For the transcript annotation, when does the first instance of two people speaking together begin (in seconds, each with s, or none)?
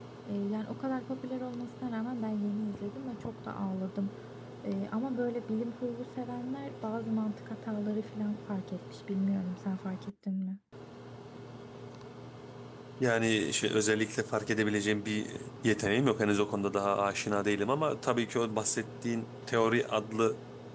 none